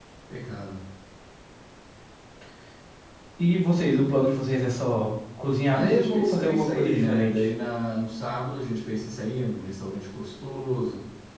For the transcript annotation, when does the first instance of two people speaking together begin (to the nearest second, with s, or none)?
6 s